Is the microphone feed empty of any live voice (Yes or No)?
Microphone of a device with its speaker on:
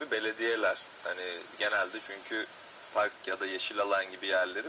Yes